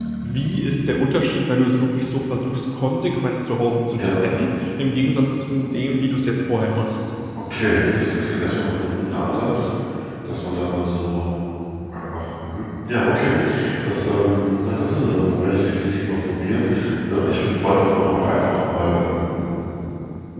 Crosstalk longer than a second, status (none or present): none